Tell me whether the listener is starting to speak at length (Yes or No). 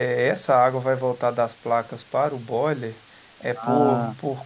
No